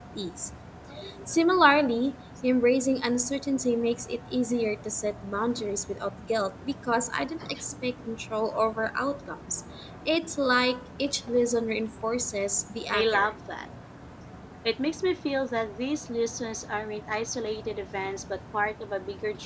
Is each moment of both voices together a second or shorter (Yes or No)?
Yes